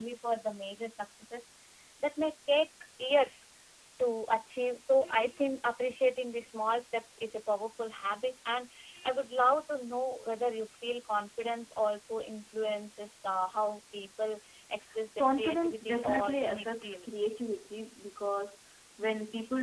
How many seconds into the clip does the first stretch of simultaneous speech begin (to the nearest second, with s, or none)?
15 s